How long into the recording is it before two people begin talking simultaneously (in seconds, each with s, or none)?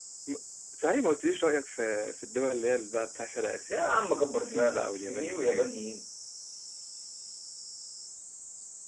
4.3 s